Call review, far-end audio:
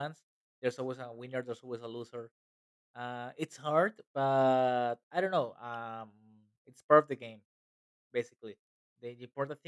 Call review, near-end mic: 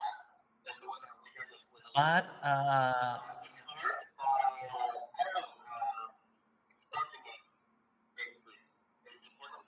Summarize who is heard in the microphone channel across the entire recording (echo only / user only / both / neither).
both